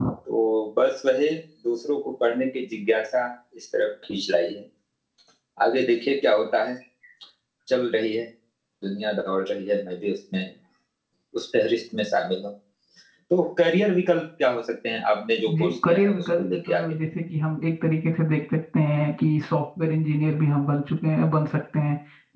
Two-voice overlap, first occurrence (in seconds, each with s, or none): 15.5 s